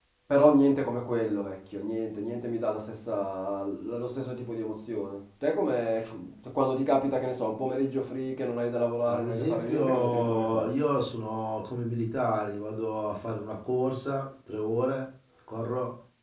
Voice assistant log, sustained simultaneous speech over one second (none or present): present